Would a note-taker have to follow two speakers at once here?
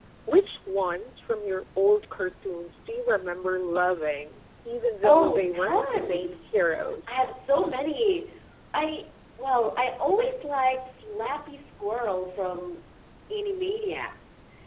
Yes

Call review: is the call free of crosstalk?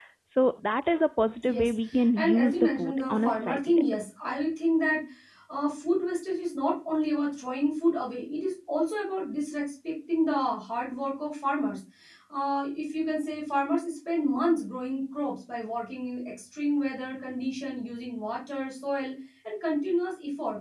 No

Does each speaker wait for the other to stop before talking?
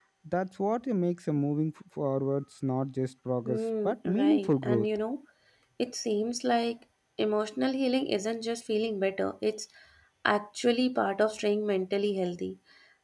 No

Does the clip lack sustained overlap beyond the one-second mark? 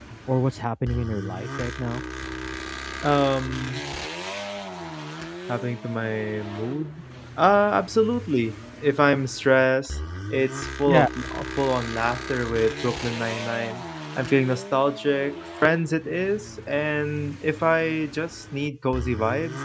Yes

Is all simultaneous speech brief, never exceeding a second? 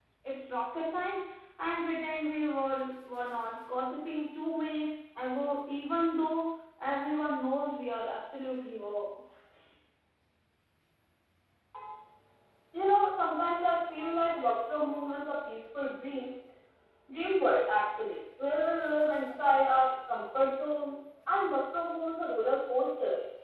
Yes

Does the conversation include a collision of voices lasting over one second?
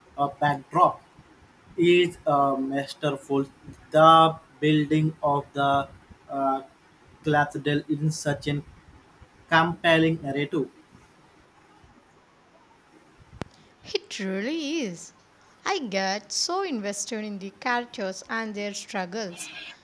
No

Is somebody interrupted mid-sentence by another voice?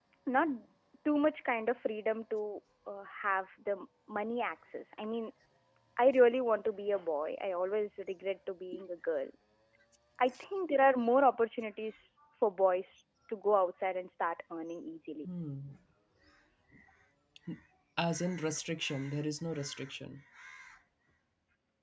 No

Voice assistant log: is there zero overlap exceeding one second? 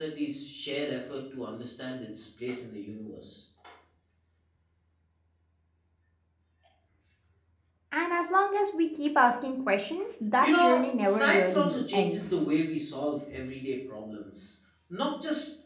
No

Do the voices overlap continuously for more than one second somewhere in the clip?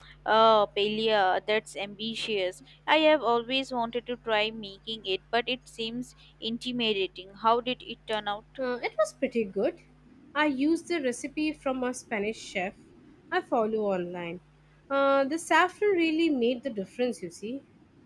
No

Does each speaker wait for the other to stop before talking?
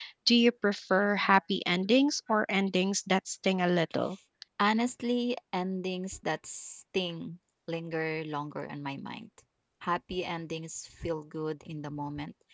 Yes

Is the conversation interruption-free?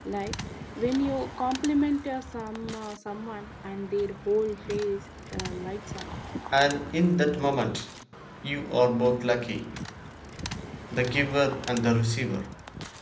Yes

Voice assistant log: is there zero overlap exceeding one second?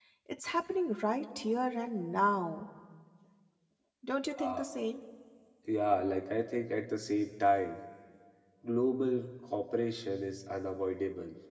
Yes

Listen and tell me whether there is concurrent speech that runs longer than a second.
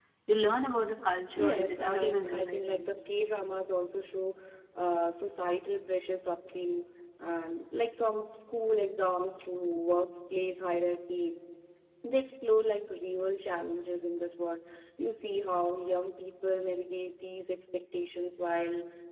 Yes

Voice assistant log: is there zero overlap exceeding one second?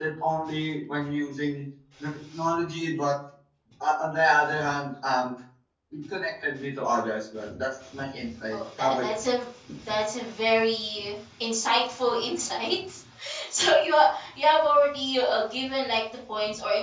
Yes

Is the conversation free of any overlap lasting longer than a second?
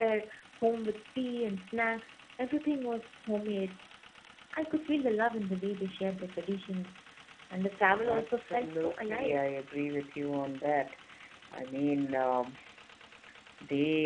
No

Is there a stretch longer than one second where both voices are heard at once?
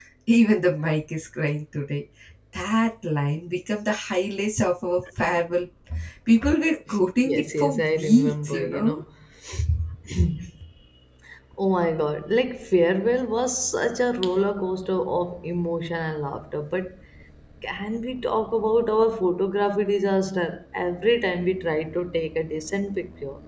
Yes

